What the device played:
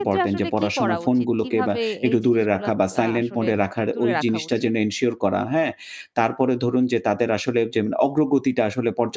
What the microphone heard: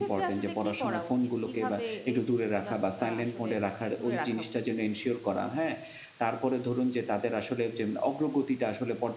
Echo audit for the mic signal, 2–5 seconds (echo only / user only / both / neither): echo only